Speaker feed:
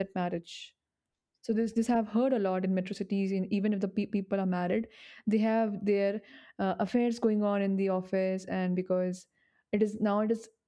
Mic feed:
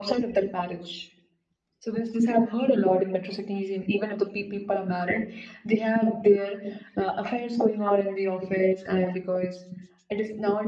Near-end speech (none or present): none